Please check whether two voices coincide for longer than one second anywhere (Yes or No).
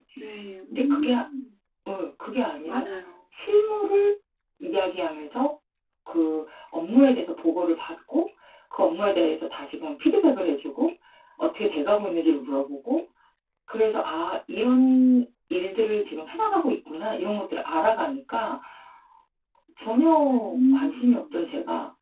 No